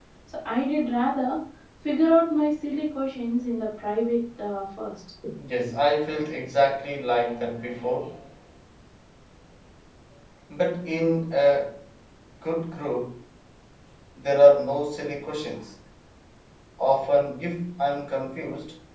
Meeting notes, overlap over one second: none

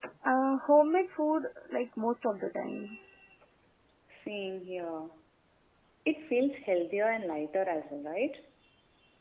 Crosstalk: none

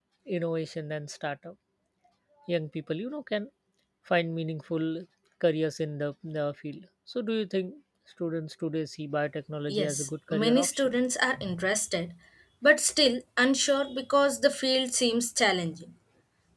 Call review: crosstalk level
present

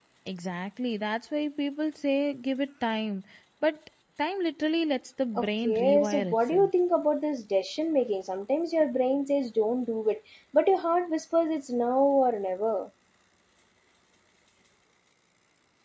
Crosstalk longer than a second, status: present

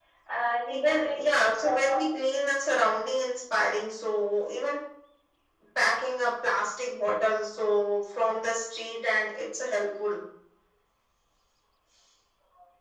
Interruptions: present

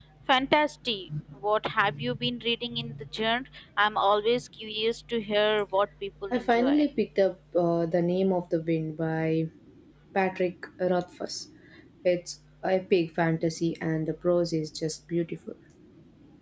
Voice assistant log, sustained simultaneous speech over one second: none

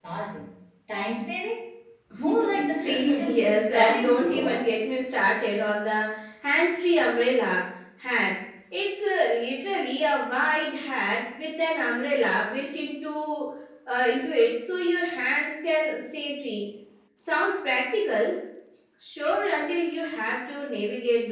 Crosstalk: present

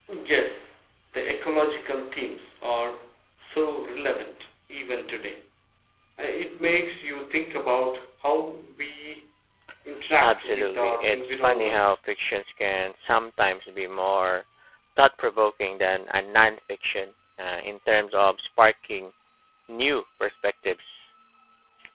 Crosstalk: present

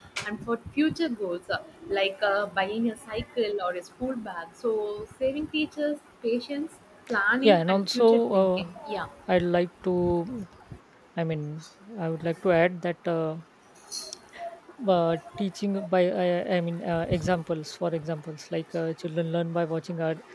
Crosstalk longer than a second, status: present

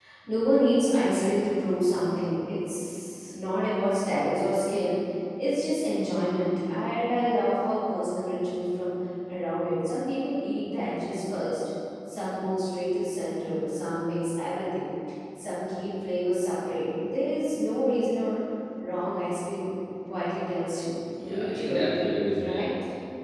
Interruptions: present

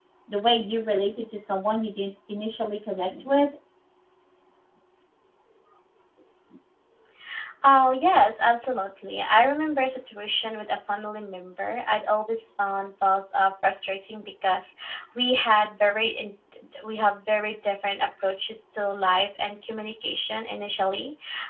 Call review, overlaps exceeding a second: none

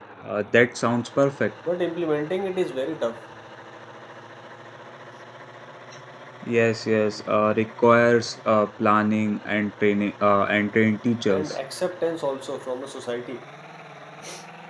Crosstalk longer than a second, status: none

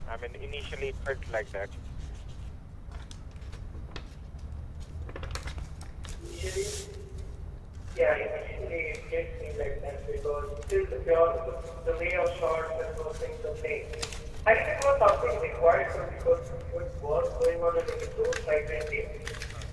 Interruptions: none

